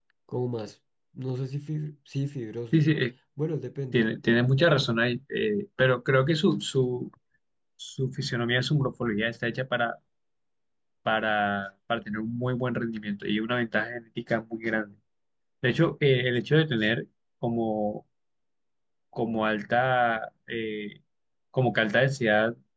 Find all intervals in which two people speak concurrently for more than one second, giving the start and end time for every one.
none

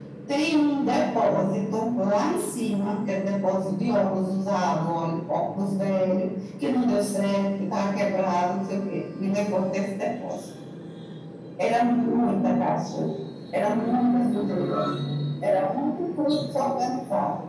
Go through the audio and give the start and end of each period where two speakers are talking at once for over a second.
none

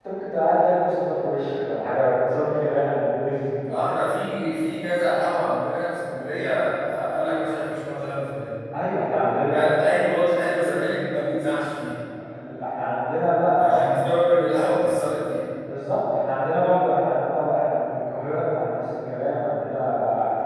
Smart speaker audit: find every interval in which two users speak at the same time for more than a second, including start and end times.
none

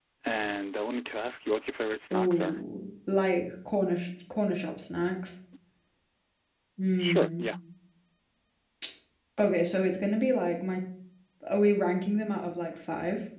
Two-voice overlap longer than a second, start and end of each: none

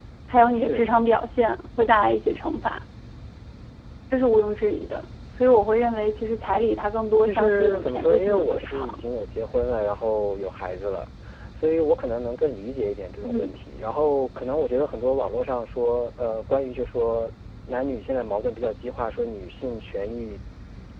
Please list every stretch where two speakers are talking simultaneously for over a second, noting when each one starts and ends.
7.2-9.0

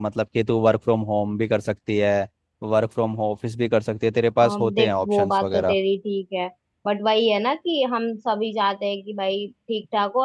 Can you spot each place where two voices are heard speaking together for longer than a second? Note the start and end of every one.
4.4-5.8

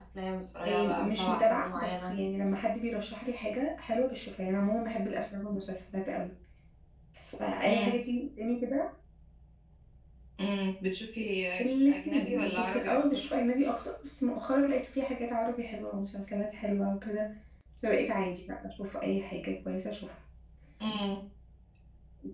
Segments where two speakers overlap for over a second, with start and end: 0.7-2.1, 11.9-13.3

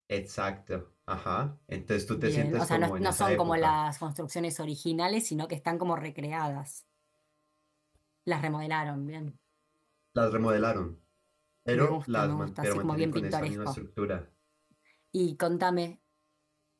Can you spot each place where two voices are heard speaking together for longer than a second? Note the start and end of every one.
2.2-3.7, 11.7-13.8

